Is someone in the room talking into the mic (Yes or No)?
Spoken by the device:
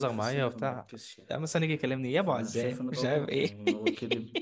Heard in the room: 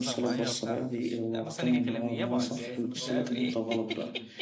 Yes